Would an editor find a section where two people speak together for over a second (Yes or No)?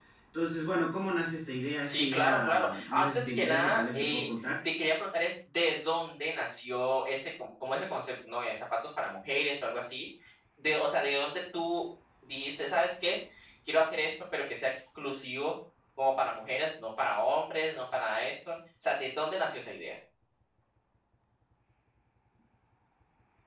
Yes